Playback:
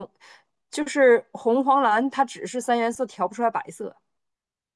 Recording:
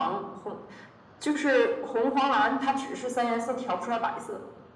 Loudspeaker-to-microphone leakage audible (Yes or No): Yes